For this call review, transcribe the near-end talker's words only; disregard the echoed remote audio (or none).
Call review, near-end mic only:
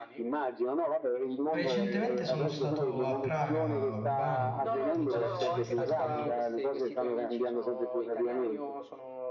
recentemente sono stato a Praga, Urbano, non so se ci sei mai stato pure tu.